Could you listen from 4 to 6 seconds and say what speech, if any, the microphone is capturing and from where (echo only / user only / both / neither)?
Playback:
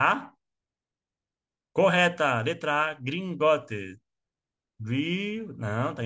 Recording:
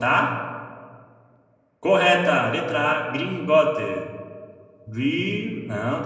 echo only